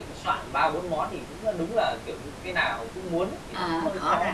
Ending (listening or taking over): taking over